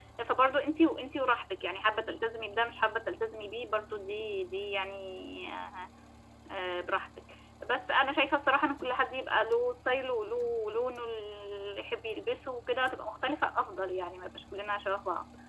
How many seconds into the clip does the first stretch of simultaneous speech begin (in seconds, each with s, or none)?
none